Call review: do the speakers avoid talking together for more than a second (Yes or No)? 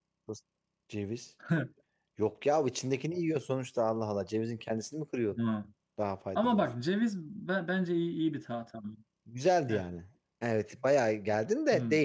Yes